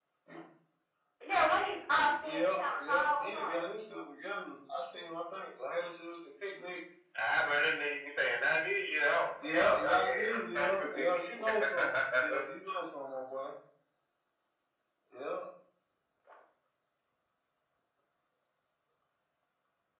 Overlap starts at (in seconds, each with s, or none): 2.2 s